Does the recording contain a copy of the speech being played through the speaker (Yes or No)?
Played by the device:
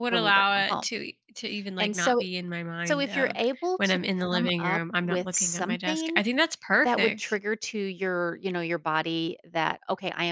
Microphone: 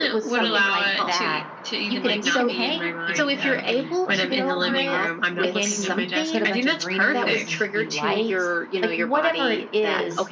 Yes